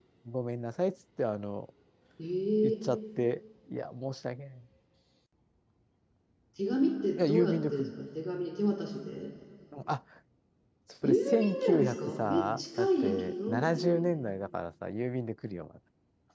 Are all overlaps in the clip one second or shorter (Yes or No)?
No